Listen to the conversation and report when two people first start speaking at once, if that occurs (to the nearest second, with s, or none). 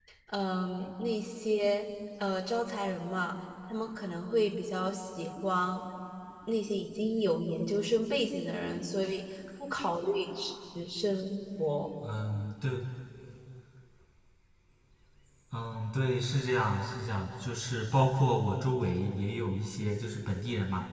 none